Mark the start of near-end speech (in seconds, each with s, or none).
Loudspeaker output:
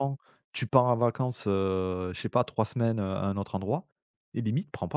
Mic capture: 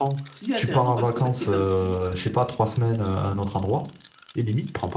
0.3 s